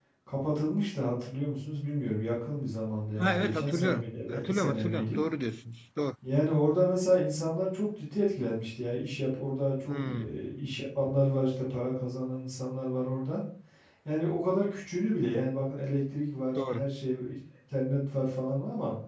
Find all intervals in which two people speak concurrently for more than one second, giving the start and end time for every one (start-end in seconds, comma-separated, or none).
3.2-5.2